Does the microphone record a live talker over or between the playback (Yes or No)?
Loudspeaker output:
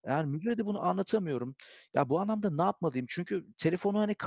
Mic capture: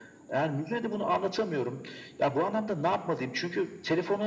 No